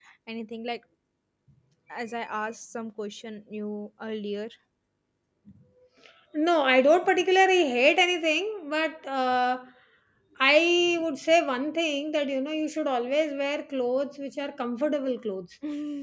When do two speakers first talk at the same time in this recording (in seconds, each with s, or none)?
none